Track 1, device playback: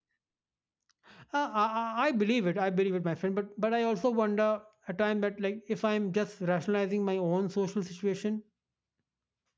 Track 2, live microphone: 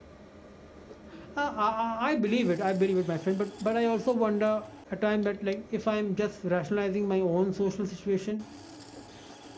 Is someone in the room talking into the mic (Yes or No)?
No